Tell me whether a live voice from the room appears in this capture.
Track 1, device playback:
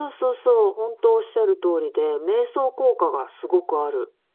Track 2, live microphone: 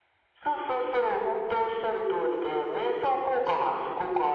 No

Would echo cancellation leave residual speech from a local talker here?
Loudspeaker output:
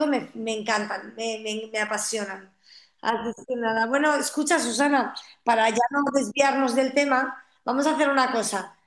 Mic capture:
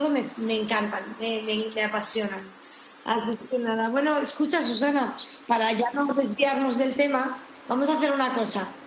No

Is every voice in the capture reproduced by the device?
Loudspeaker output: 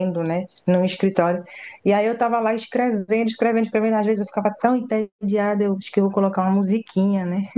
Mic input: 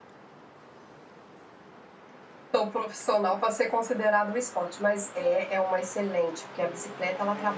No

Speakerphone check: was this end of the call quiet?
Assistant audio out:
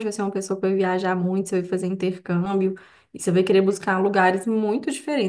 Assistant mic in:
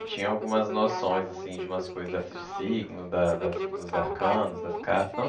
No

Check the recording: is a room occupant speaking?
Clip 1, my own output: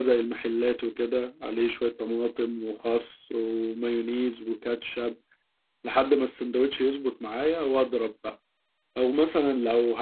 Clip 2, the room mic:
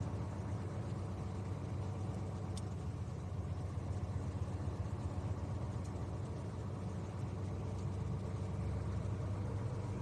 No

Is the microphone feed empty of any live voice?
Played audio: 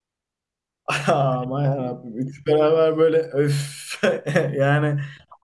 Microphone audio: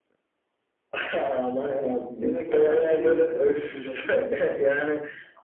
No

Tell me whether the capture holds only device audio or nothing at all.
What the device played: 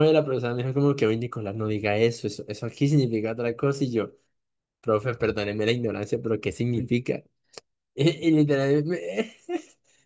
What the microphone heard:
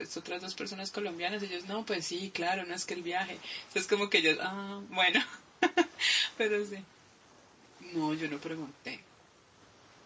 No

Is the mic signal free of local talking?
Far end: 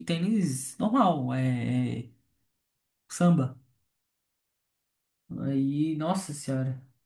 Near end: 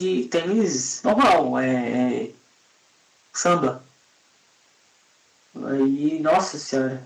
Yes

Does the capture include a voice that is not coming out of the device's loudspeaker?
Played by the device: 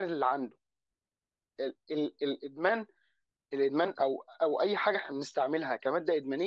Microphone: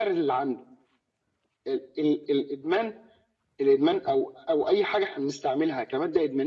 No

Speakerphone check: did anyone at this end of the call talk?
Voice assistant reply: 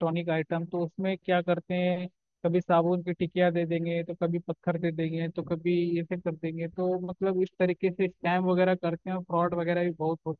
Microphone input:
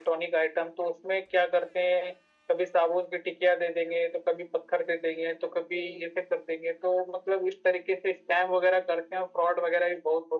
No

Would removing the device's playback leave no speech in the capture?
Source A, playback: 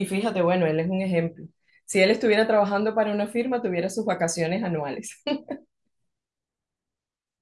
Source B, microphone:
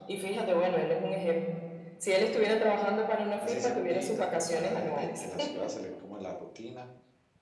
No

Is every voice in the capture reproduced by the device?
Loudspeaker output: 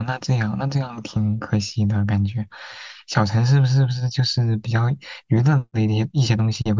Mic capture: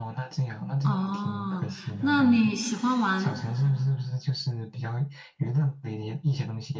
No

